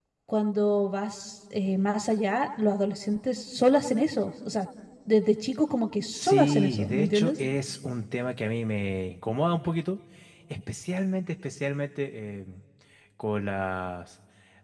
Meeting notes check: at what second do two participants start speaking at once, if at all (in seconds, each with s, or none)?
6.1 s